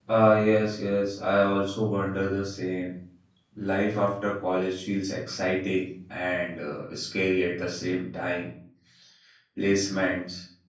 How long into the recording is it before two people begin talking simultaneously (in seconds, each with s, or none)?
none